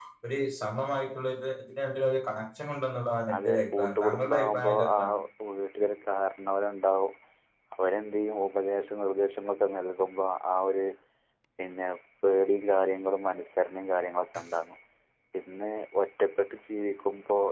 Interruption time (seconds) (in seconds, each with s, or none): 3.3 s